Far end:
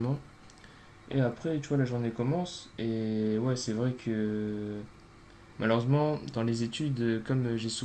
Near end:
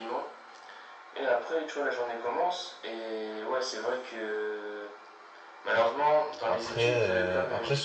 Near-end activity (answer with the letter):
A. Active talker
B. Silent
A